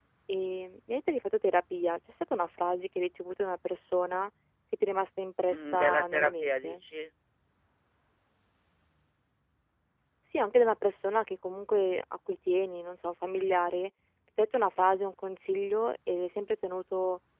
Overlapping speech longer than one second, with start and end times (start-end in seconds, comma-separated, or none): 5.5-6.8